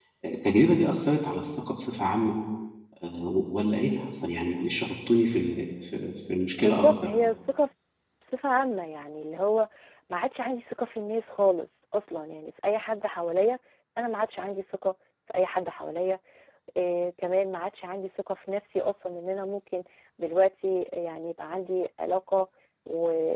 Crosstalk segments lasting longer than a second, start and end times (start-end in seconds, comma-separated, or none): none